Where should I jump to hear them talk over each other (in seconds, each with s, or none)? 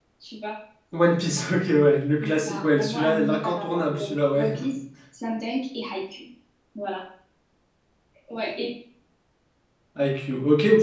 2.2 s